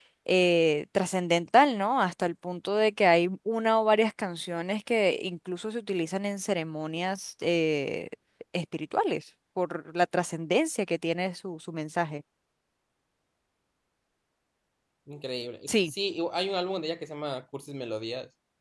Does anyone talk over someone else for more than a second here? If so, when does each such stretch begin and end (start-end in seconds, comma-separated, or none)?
none